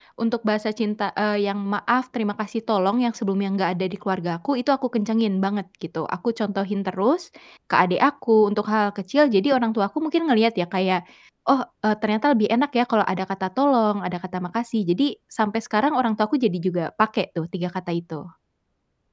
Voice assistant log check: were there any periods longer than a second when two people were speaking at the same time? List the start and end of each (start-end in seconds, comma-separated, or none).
none